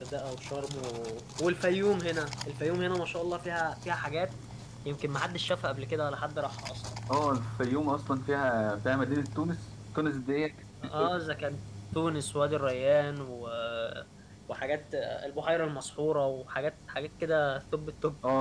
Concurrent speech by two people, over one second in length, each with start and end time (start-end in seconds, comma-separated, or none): none